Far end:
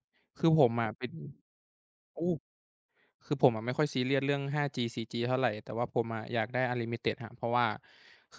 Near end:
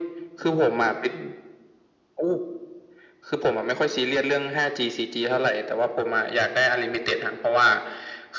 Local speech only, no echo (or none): none